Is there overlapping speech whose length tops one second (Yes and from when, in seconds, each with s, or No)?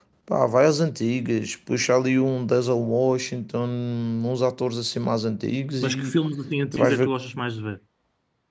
No